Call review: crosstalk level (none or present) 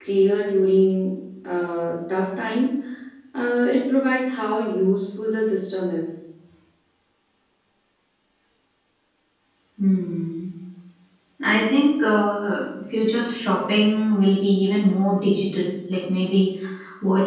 none